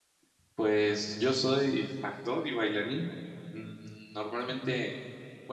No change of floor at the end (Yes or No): Yes